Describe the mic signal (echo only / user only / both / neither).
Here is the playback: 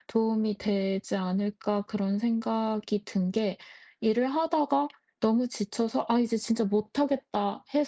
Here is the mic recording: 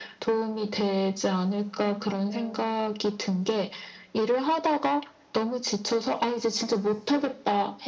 both